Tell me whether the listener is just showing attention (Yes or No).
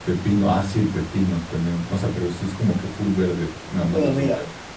No